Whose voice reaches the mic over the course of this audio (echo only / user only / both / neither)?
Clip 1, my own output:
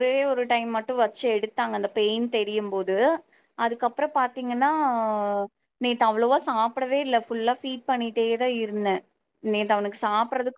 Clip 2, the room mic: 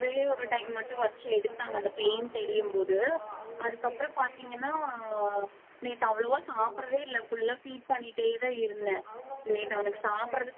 both